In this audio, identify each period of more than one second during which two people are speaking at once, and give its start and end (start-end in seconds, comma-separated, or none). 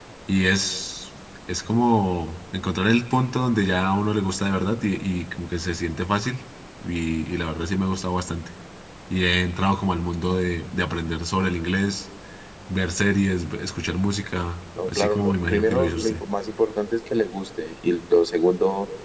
14.9-16.2